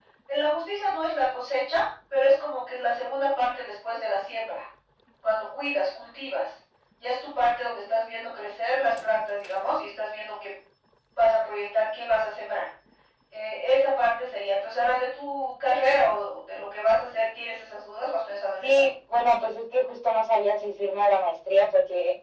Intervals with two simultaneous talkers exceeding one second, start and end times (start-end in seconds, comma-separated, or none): none